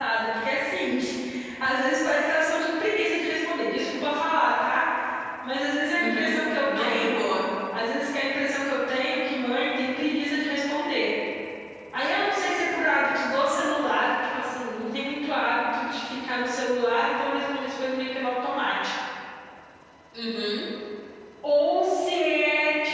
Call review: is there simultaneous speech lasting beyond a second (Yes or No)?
Yes